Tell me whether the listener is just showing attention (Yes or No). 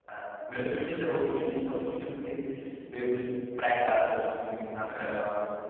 No